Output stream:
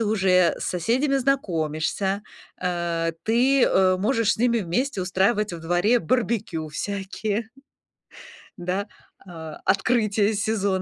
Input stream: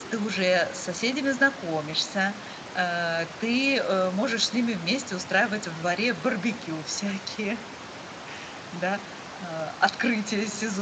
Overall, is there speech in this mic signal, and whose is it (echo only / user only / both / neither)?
echo only